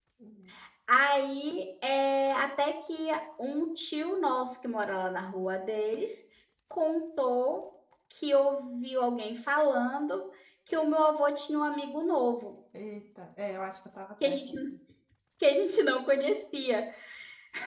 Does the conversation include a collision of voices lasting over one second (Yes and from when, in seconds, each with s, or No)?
No